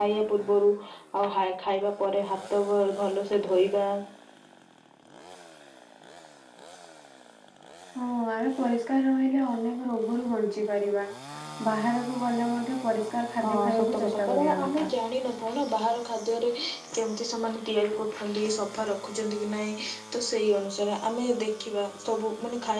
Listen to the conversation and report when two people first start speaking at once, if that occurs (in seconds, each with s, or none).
13.4 s